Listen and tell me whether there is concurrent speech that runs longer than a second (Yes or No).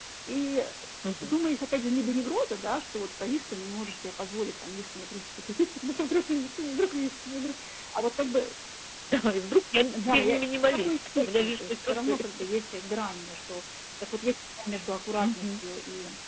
Yes